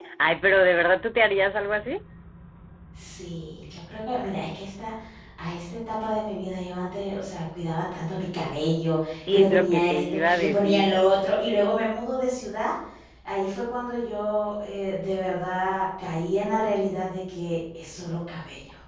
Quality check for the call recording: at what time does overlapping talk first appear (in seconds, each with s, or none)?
9.2 s